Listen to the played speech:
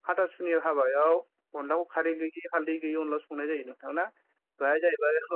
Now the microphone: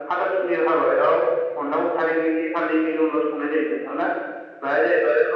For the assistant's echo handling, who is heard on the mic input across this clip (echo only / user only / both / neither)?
echo only